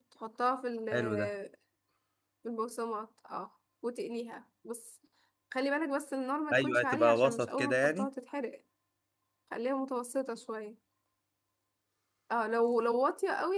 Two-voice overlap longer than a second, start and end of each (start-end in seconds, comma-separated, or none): 6.5-8.1